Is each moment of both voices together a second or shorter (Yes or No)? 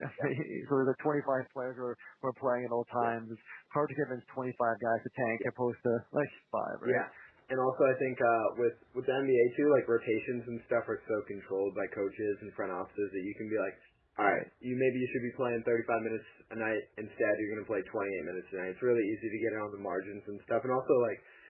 Yes